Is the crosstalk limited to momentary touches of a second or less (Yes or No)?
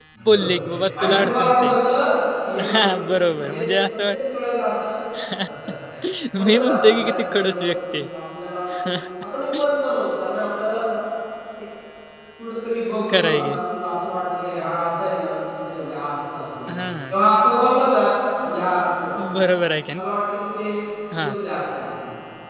No